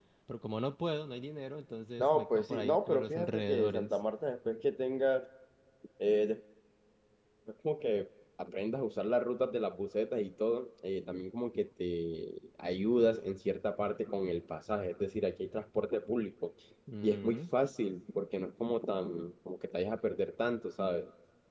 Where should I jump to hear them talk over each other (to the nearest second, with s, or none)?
2 s